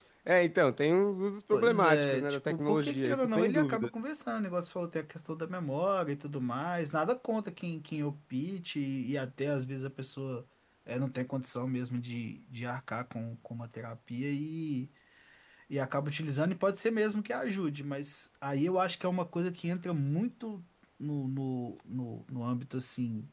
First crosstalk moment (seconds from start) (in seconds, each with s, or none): 1.5 s